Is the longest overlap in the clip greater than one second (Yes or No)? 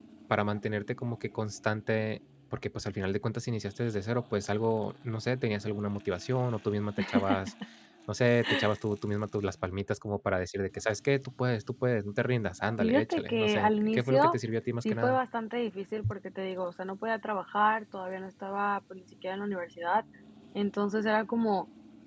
Yes